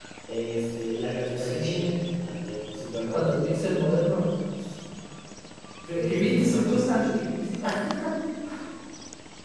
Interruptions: present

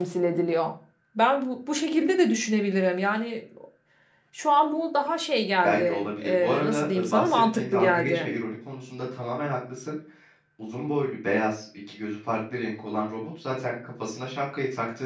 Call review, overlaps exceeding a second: present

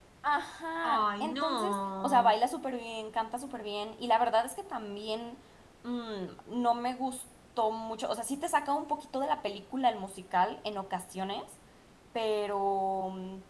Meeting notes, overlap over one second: present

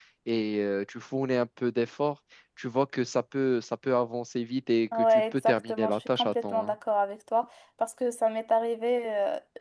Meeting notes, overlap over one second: present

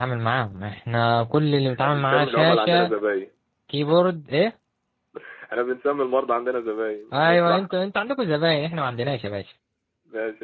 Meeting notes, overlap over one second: present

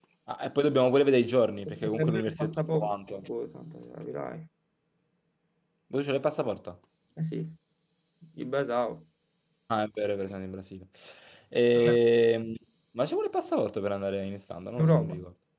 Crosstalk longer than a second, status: present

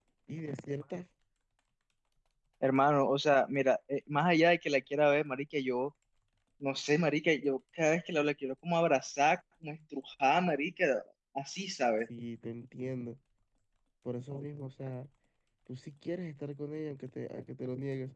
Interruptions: none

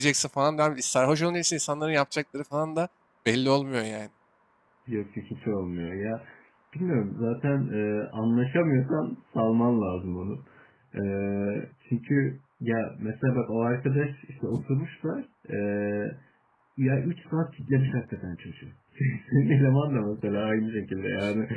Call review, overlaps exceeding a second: none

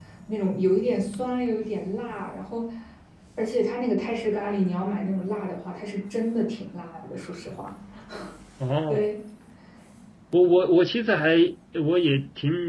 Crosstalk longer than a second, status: none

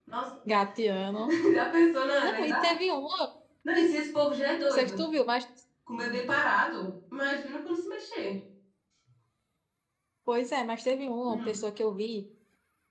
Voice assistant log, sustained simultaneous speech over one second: none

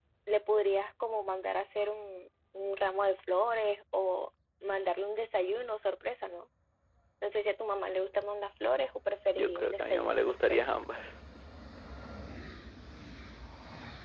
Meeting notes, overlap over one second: present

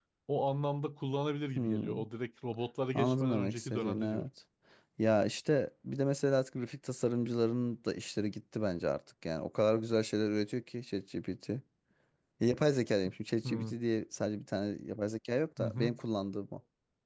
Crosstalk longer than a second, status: present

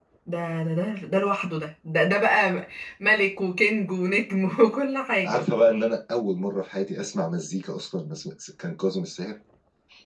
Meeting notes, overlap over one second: none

